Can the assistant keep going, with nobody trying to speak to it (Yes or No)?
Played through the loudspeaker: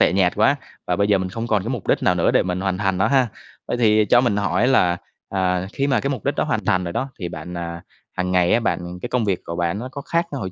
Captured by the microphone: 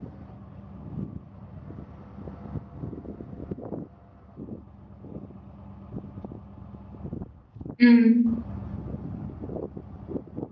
No